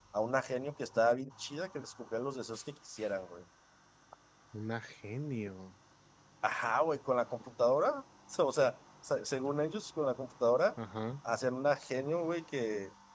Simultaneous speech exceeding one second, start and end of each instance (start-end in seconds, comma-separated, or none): none